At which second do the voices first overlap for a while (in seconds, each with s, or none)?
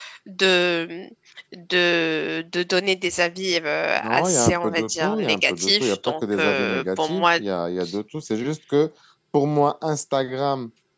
4.0 s